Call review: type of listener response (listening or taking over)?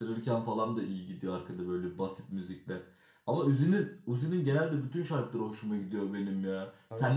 listening